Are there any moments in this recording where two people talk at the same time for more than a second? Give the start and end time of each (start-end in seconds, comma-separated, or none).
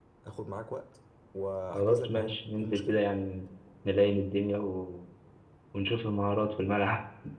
1.7-3.0